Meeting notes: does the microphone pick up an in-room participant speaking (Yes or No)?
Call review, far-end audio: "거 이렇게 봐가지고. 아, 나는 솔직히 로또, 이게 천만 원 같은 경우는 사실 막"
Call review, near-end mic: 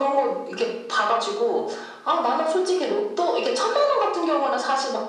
No